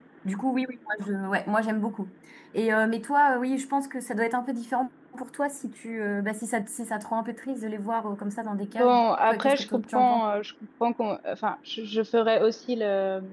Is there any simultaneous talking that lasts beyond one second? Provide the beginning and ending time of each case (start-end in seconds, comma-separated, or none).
8.7-10.2